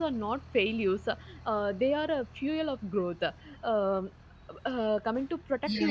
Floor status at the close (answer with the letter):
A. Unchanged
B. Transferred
B